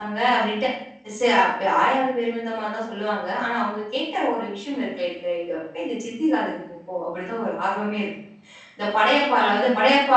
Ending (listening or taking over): listening